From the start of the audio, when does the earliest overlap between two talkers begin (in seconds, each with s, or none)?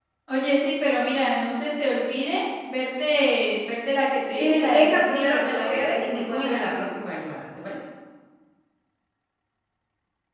4.4 s